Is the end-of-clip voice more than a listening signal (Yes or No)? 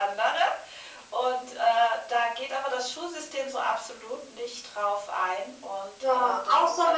Yes